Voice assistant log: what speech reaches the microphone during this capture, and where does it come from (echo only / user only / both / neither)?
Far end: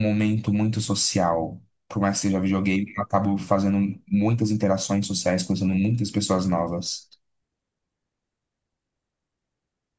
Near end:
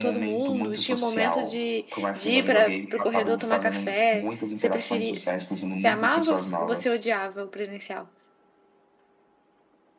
both